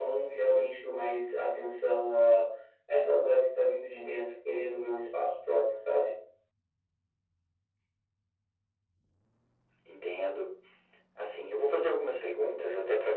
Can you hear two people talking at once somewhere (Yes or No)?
No